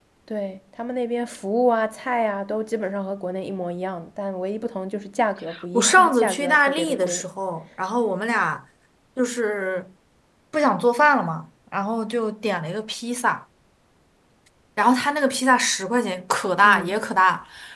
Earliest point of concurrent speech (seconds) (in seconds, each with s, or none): 5.7 s